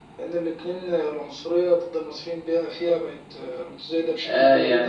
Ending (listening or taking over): taking over